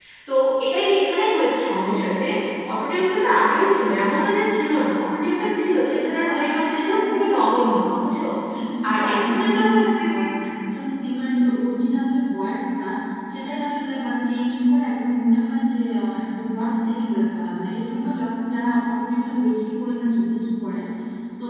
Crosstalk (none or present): present